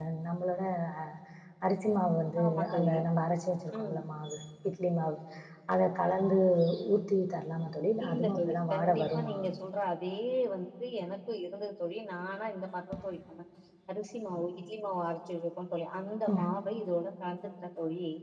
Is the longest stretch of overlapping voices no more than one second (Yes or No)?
No